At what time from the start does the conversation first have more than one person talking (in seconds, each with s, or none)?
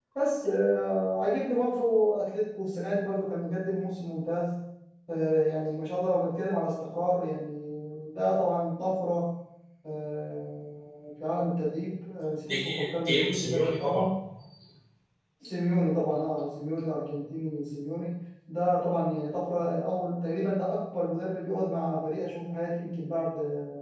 12.5 s